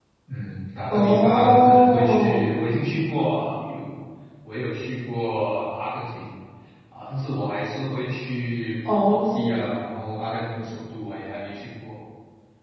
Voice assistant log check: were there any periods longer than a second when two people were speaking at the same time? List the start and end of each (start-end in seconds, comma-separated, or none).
0.9-2.5